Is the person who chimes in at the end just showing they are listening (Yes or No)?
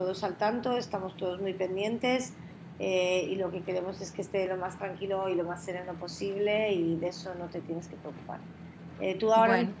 Yes